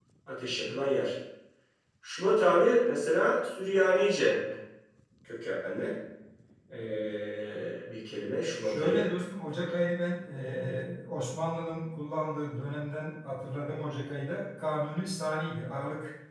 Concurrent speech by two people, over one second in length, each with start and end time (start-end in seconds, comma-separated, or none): none